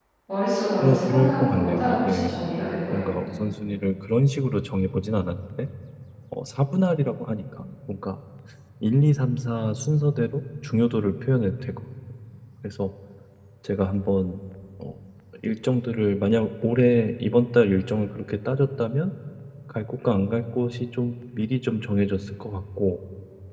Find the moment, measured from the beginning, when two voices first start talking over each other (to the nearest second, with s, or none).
1 s